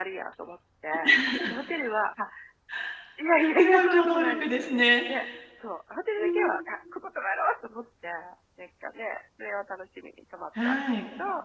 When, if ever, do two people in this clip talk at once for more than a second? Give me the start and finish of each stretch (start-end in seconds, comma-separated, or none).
3.6-5.0